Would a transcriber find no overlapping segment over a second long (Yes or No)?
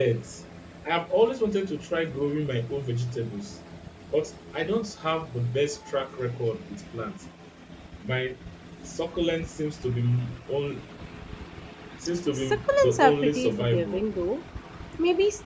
No